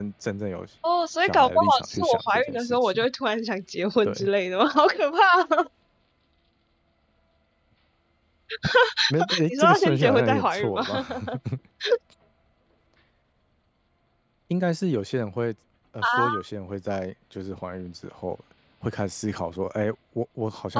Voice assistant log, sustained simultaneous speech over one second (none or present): present